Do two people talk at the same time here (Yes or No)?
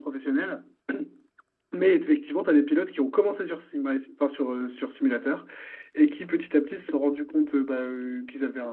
No